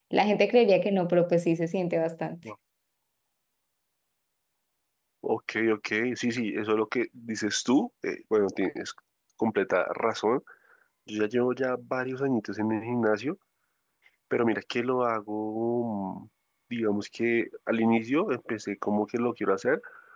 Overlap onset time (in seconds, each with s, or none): none